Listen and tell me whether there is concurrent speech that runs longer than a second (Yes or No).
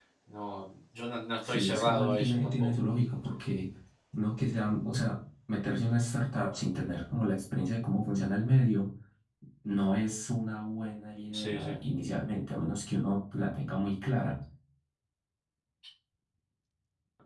Yes